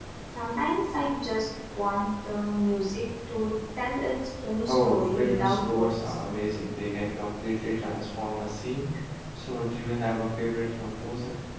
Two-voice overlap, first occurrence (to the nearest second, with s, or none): 5 s